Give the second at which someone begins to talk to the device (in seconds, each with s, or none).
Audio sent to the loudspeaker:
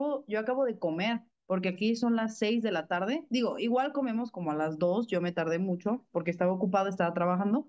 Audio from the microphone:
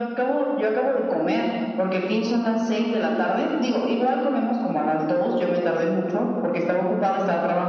none